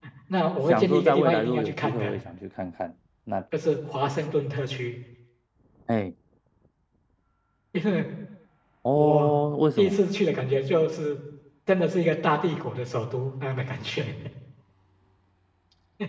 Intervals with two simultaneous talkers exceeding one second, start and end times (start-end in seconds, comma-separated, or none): 0.7-2.1